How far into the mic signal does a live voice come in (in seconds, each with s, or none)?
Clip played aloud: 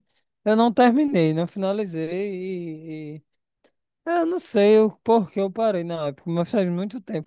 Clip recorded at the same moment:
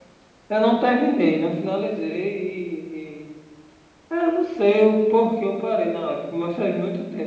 none